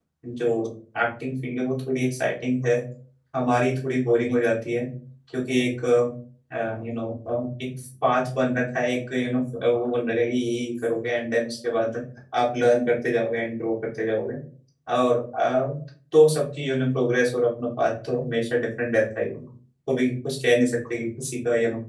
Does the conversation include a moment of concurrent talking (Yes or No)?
No